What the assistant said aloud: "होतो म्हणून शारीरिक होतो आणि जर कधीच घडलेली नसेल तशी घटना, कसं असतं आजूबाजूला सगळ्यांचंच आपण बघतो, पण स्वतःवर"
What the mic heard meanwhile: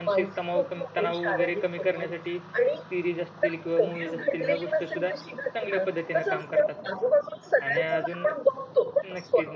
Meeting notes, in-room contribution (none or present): present